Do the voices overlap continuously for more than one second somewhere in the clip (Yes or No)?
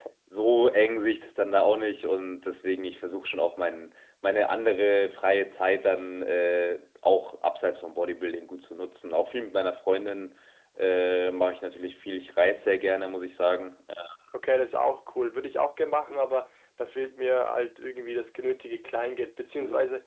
No